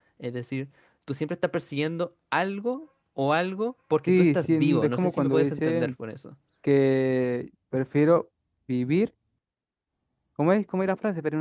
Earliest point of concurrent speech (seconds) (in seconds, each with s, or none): 4.1 s